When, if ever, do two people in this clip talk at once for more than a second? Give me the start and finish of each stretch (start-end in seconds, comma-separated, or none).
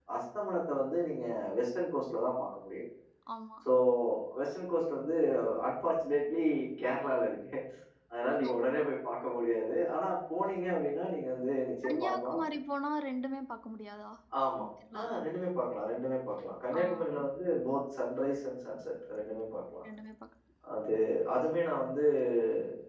none